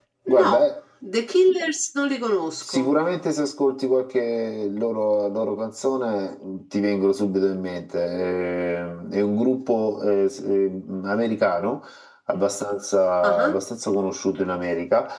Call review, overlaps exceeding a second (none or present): none